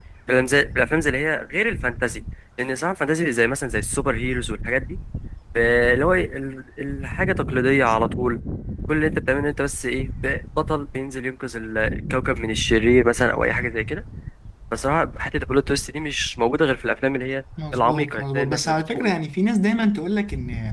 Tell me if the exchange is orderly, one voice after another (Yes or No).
No